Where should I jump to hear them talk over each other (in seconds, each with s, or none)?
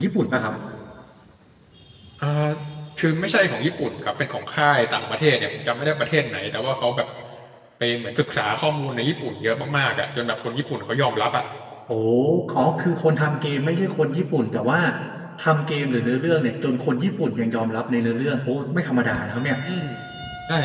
none